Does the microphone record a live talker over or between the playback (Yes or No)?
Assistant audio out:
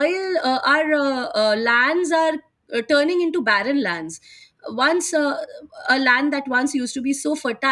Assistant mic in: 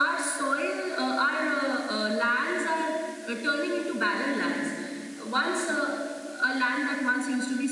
No